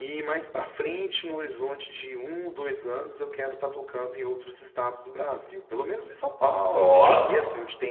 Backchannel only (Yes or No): Yes